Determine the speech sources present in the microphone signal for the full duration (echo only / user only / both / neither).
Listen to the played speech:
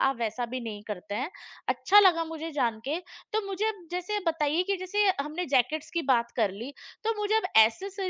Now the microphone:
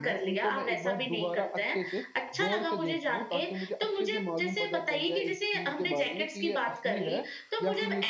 both